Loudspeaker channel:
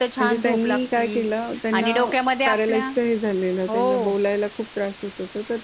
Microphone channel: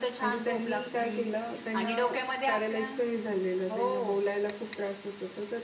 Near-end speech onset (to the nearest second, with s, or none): none